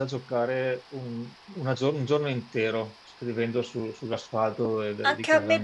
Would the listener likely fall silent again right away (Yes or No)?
No